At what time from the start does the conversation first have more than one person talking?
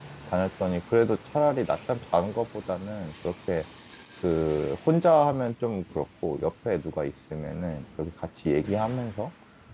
none

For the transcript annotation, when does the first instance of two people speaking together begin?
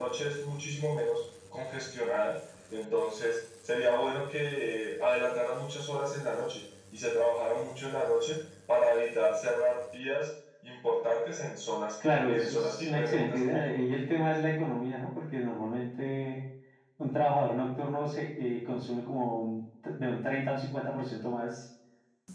12.0 s

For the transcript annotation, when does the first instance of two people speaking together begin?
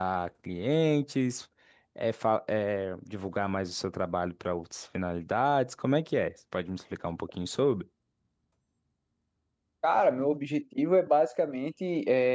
none

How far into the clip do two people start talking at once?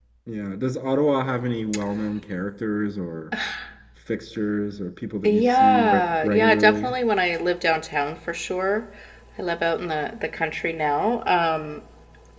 5.2 s

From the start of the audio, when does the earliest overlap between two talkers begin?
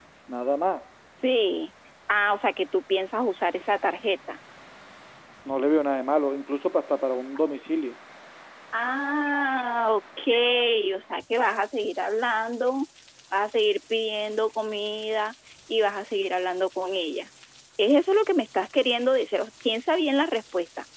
none

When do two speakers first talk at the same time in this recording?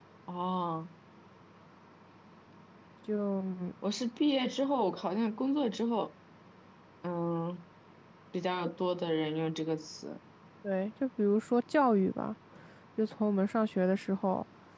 none

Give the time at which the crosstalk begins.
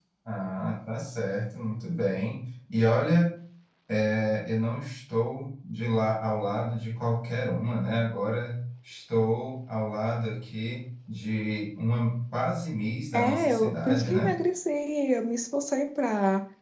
13.1 s

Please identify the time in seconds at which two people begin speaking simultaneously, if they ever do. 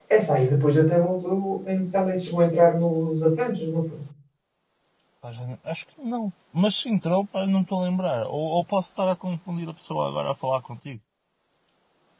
none

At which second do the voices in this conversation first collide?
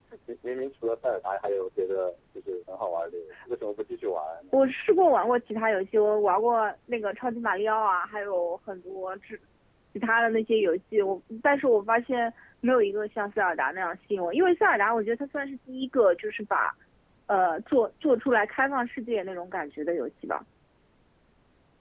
none

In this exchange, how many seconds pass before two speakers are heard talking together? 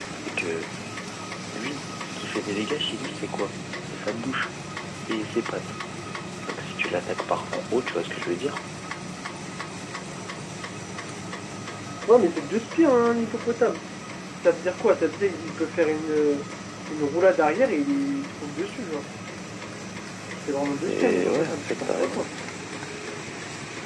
20.9 s

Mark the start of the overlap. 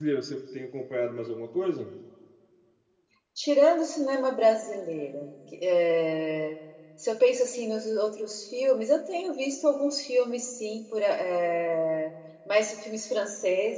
none

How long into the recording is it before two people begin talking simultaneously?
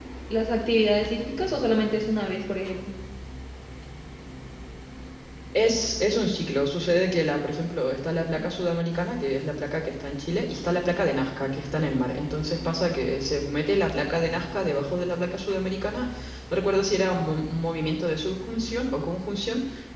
none

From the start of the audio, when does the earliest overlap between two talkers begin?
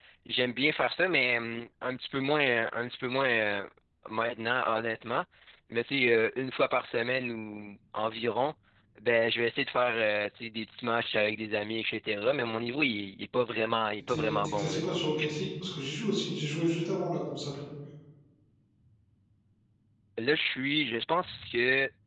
14.0 s

